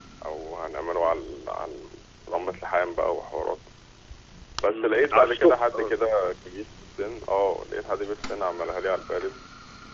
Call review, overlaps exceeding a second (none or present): present